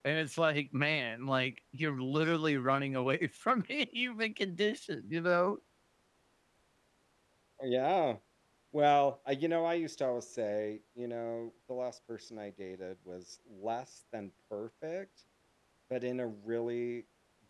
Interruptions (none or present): none